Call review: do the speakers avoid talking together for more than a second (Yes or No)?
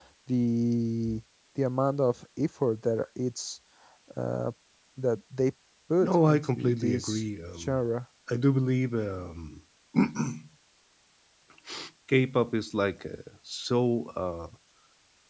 No